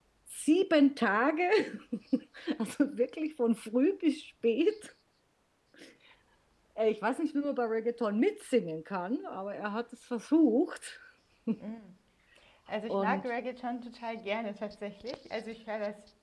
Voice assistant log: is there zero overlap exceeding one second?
Yes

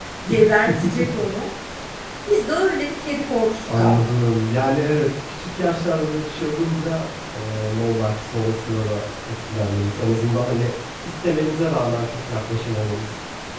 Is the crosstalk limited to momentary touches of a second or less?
Yes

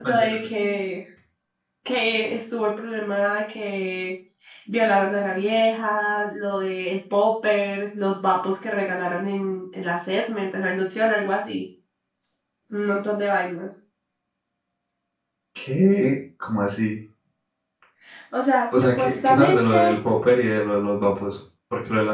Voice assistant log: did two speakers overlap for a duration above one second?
Yes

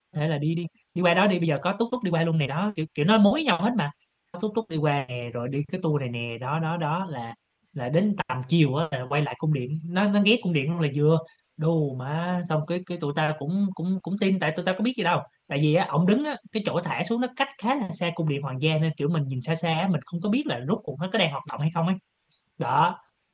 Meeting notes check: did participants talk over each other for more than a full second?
No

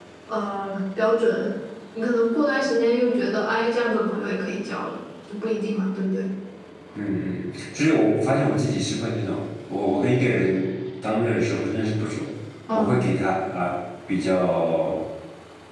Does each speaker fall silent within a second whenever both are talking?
Yes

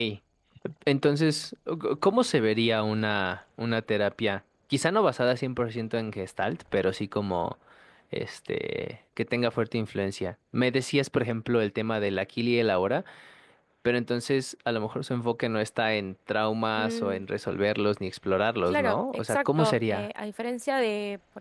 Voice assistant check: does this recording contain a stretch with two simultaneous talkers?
Yes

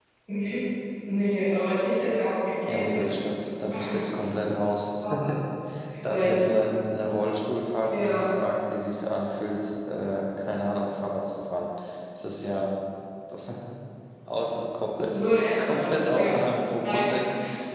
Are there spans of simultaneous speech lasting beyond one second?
Yes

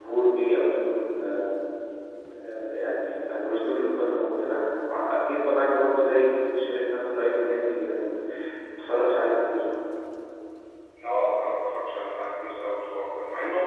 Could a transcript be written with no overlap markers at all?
Yes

